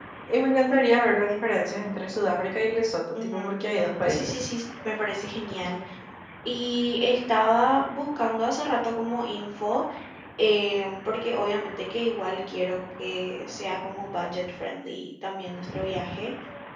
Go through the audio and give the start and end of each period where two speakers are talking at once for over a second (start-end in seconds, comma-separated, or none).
3.2-4.4